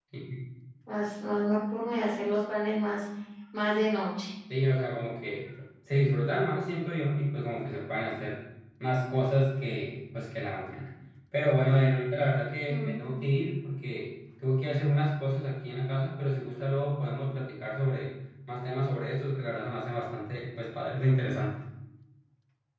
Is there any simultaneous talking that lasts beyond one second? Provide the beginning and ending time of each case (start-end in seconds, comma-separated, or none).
none